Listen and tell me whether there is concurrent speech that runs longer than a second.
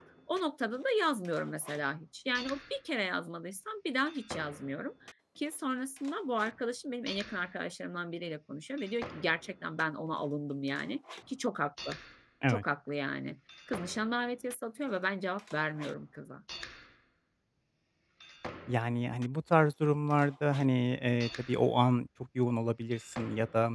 No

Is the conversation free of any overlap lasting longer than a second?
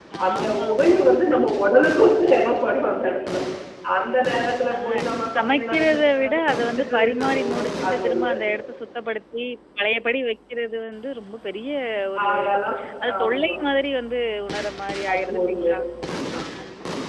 No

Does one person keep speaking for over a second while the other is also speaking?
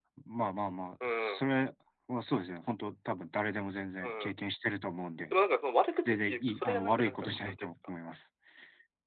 Yes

